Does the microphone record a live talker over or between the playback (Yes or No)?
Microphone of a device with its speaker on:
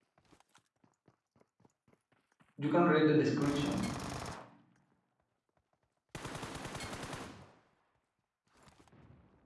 Yes